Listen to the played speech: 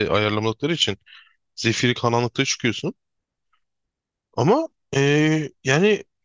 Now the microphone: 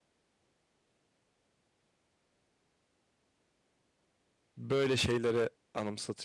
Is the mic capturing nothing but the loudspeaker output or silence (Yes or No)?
No